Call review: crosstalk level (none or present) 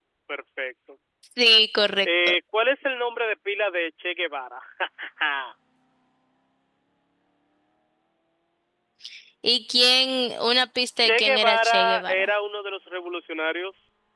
present